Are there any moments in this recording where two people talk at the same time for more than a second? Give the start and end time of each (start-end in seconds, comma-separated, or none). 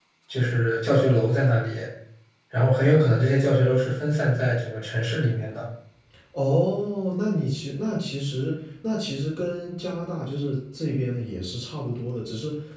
none